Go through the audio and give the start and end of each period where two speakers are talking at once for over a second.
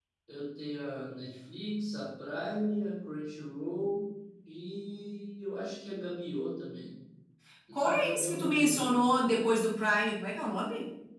7.7-9.0

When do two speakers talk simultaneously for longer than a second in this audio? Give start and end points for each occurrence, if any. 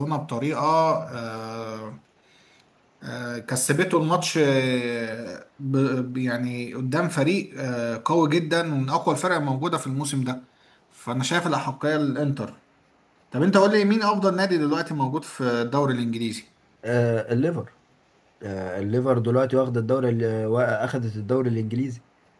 none

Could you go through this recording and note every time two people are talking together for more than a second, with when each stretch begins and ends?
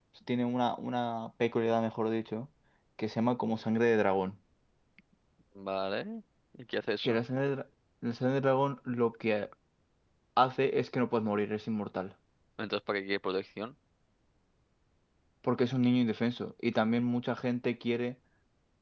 none

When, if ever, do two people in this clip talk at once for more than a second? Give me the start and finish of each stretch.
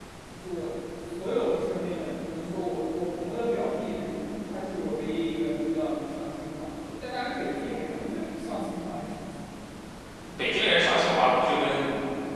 none

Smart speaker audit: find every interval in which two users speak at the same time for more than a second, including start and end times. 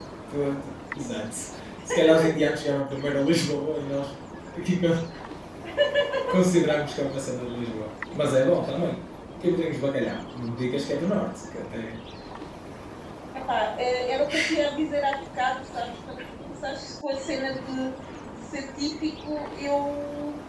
none

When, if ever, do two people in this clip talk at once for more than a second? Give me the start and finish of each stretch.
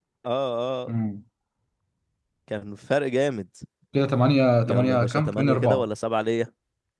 4.6-5.8

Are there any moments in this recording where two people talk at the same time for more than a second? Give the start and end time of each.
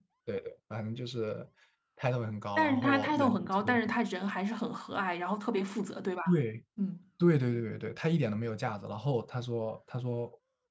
2.6-3.9

